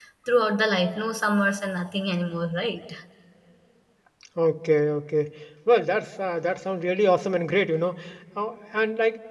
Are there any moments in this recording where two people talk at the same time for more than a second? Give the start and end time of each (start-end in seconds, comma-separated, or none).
none